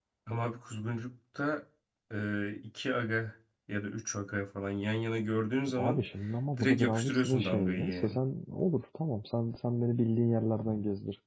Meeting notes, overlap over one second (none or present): present